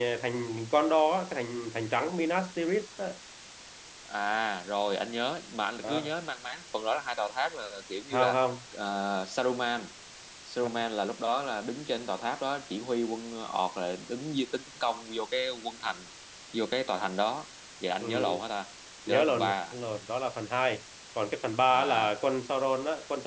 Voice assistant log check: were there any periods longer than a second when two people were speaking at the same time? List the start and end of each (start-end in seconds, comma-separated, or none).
none